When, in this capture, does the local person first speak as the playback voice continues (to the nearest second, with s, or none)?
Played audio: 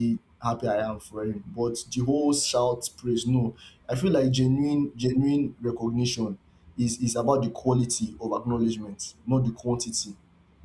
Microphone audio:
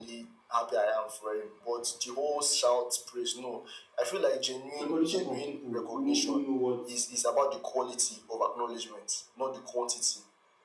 5 s